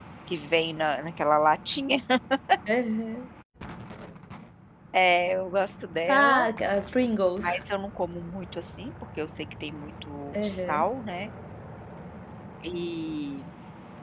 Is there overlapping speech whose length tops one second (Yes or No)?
No